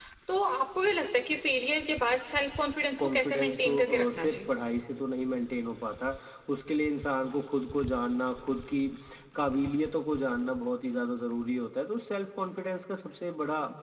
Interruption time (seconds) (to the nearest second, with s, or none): 3 s